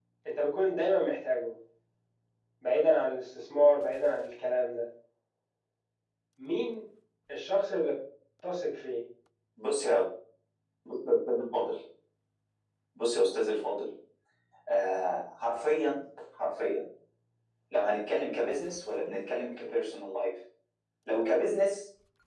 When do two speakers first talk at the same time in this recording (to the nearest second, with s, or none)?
none